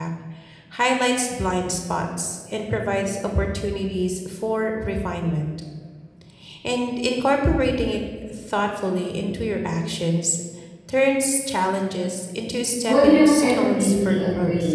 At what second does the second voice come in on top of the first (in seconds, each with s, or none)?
12.9 s